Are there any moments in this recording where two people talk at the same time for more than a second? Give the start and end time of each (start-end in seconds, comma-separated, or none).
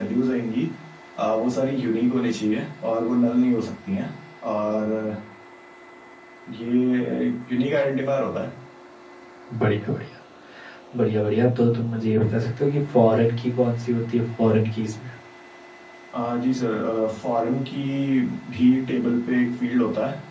none